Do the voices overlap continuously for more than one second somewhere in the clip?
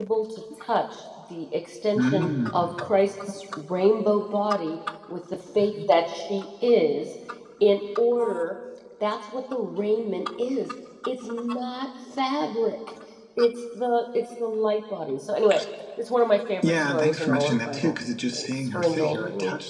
Yes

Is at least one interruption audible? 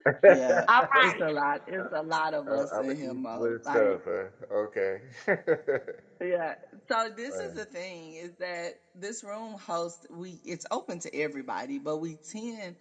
Yes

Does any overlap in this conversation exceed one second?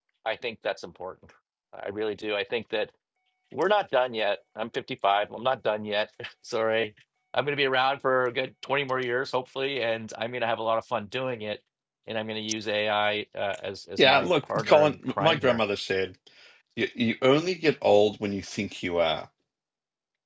Yes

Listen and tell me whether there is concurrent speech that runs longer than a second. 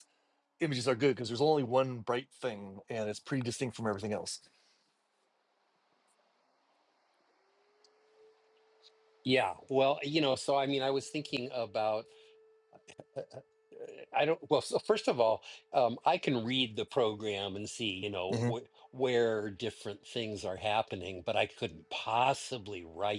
No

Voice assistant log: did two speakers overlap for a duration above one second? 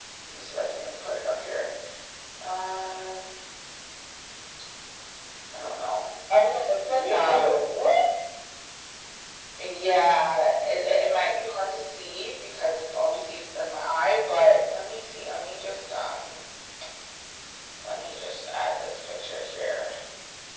No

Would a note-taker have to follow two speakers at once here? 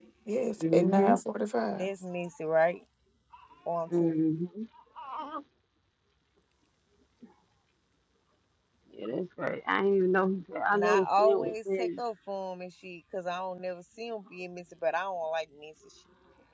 Yes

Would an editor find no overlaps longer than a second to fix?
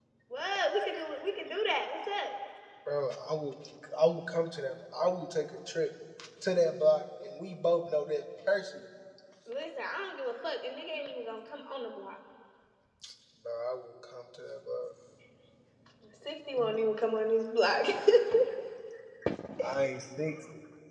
Yes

